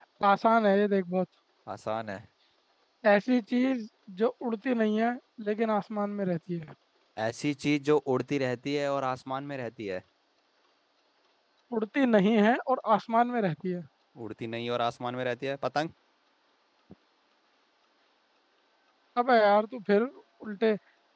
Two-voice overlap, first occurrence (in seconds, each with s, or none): none